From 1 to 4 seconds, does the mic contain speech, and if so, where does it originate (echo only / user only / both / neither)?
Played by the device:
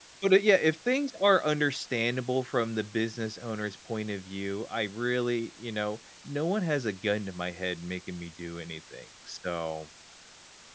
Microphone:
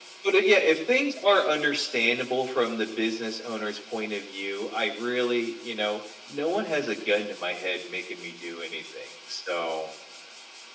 echo only